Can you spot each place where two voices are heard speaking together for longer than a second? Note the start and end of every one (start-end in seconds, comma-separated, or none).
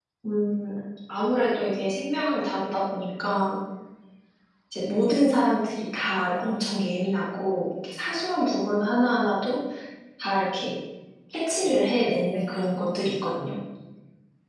12.3-13.5